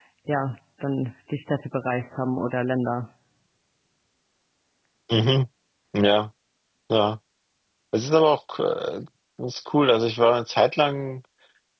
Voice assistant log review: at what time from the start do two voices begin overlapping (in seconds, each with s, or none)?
none